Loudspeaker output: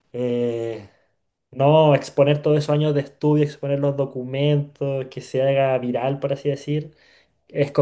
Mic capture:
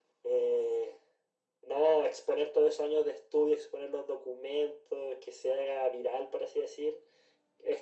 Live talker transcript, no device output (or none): none